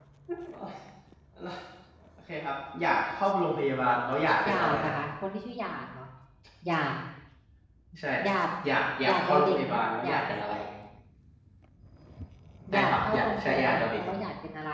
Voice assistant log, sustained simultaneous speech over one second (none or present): present